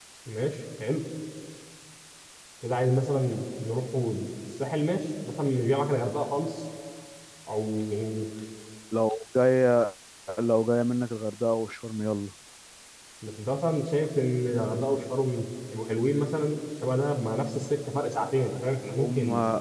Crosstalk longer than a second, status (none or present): none